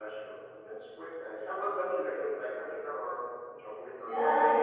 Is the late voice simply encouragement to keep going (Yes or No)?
No